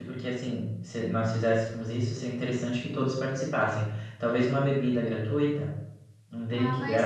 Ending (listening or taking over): taking over